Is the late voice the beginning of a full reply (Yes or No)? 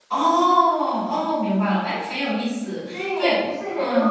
Yes